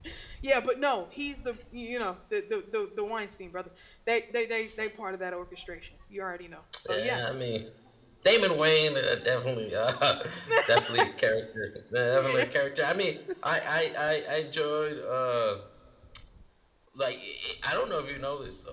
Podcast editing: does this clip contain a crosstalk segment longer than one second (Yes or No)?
No